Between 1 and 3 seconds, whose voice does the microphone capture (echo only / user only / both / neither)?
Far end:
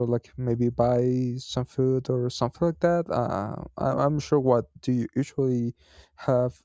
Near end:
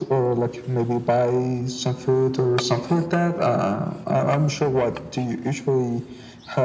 echo only